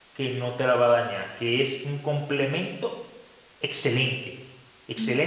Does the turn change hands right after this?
No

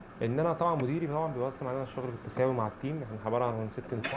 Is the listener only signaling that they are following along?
Yes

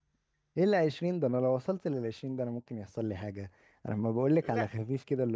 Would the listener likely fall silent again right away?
Yes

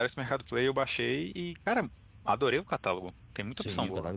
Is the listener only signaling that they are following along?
No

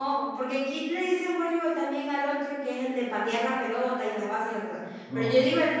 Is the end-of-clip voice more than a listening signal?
No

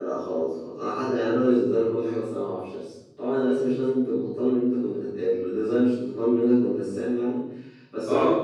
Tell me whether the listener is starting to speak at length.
No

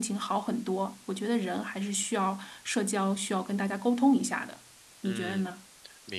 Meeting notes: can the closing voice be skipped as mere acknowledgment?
No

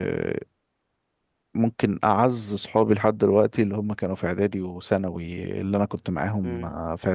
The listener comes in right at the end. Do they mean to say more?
No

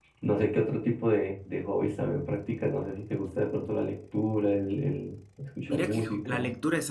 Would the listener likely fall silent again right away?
No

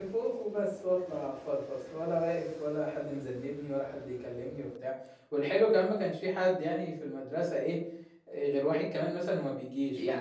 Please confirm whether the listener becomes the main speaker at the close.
Yes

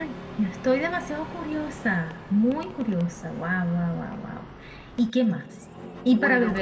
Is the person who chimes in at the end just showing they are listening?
Yes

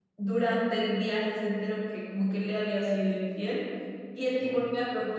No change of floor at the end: Yes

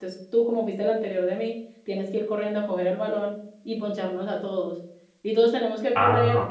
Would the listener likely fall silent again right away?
Yes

